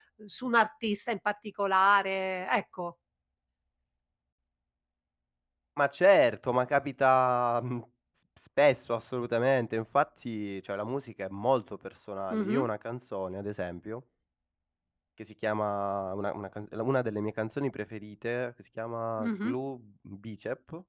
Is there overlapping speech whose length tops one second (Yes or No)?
No